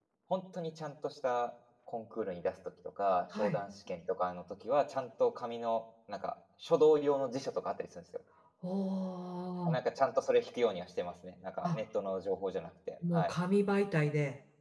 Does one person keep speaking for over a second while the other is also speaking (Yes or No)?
No